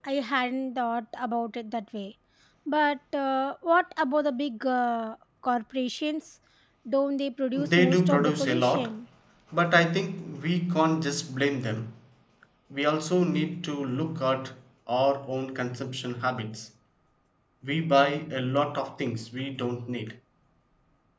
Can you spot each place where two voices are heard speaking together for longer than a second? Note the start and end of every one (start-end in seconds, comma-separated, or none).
7.7-8.9